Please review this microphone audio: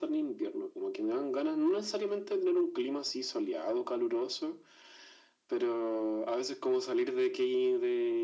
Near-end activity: none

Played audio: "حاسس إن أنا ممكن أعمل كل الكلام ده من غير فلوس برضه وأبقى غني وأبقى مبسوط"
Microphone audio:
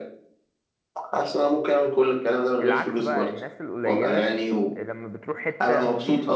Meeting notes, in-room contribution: present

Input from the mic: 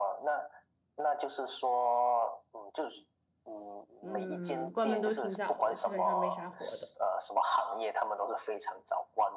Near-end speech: present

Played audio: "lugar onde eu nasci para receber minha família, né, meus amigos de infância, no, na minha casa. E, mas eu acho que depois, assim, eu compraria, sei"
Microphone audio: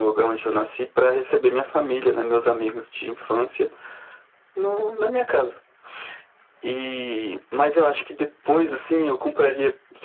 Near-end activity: none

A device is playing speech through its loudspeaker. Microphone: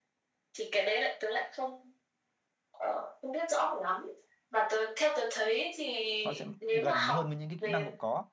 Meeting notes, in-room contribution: present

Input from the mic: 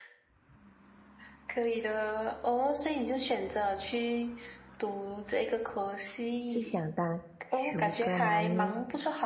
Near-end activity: present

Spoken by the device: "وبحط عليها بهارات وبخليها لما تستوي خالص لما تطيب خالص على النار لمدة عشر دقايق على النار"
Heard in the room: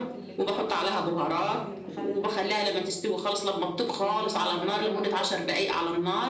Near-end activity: present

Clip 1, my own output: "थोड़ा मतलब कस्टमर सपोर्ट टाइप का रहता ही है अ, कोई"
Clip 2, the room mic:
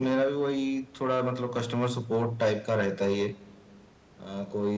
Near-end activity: none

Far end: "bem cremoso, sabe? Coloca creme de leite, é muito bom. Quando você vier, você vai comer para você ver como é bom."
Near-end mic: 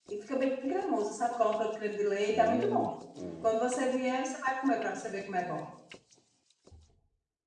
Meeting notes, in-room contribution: present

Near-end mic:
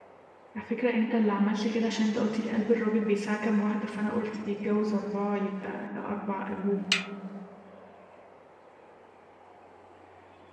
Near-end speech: present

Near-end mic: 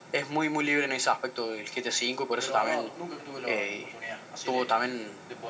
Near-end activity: present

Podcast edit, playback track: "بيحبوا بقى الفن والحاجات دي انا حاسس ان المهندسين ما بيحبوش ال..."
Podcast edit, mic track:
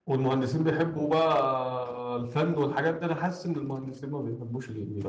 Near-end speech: none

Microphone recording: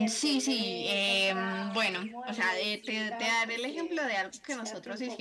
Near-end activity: present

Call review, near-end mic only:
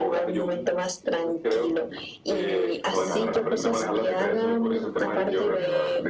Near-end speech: present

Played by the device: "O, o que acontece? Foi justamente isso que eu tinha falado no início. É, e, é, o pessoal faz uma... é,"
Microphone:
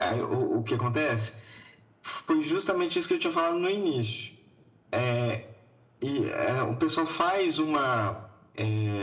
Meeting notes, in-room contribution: none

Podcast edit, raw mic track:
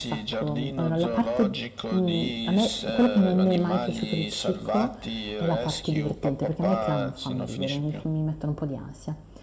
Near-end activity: present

